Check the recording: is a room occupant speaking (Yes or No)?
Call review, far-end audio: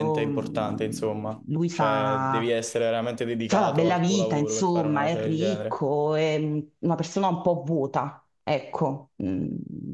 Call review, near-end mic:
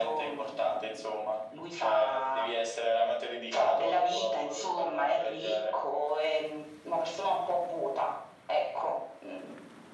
No